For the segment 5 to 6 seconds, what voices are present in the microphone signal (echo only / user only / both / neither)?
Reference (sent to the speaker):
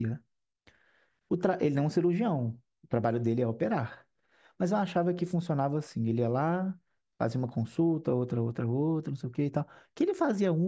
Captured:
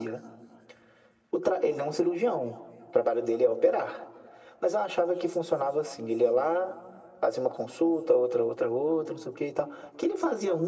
echo only